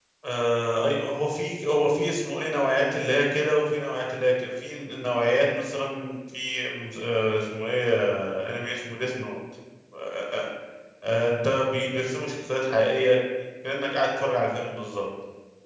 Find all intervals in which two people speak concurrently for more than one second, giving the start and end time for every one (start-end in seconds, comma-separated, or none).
none